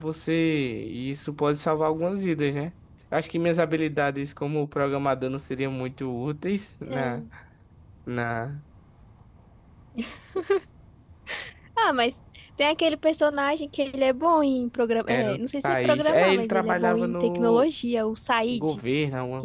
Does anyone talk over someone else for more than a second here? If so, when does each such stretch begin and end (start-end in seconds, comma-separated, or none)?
15.1-17.7